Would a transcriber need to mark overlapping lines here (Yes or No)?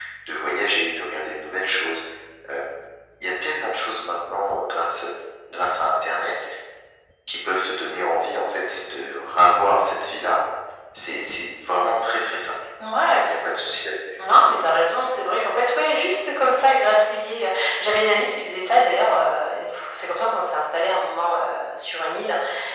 No